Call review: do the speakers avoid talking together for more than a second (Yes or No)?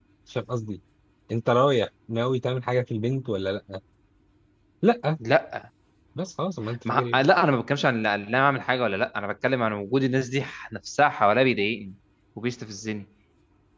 Yes